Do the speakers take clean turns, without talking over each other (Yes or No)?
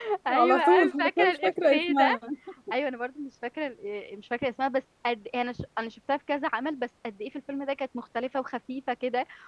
No